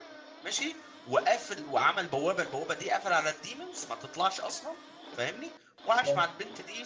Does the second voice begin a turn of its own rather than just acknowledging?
No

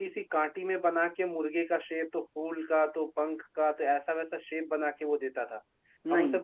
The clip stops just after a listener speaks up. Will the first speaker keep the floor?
Yes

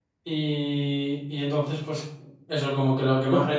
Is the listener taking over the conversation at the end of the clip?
Yes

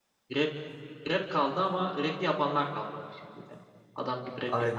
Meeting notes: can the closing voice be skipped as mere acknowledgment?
No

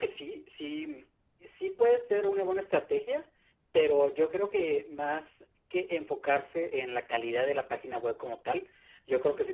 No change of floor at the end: Yes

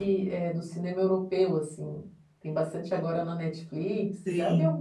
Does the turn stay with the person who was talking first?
No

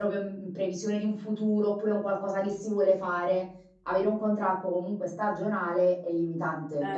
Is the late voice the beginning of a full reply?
Yes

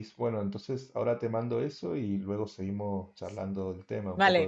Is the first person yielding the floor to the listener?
Yes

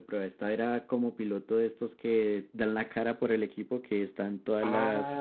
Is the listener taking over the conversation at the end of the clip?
Yes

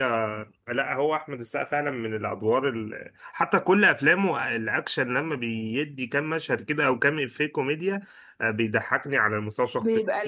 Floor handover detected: No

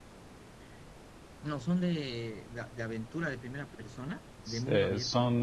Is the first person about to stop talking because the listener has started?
Yes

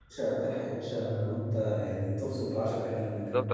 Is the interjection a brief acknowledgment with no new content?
No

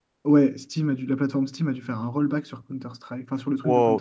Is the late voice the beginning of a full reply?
Yes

